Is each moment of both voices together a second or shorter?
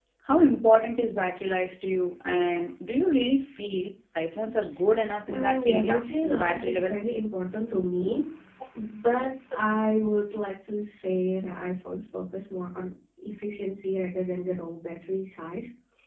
No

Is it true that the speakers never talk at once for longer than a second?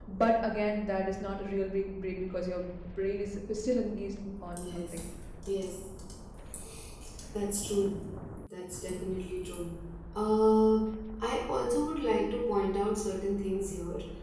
Yes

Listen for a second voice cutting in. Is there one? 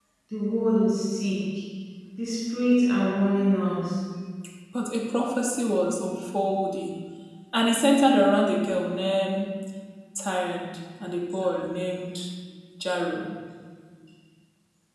No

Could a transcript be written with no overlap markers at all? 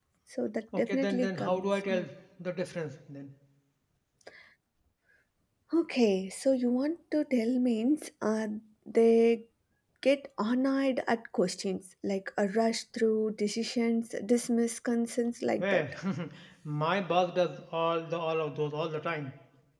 No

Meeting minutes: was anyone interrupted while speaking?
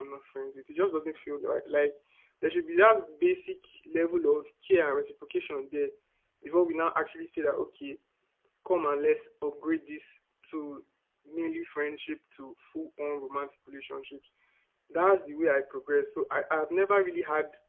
No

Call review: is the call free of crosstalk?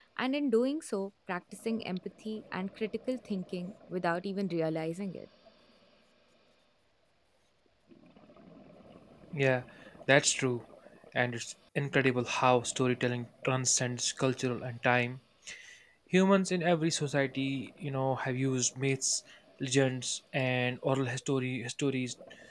Yes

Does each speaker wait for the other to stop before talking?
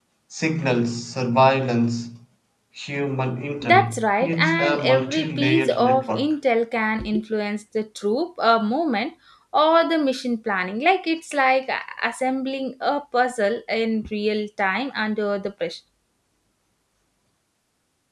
No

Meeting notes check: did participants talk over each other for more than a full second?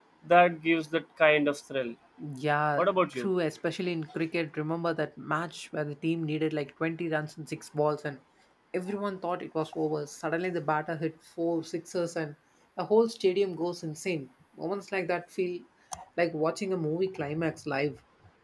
No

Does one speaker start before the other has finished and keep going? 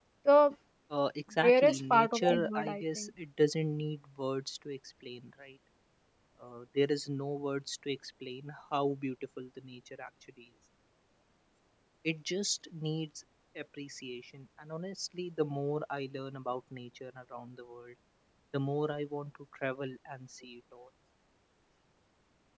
Yes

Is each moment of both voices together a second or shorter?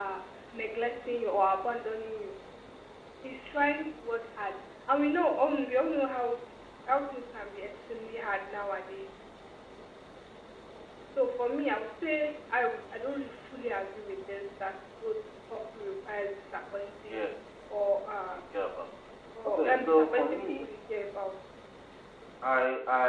No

